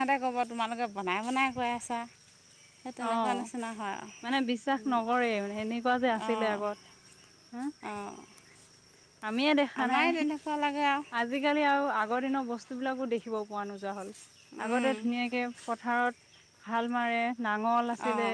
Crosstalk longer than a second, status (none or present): none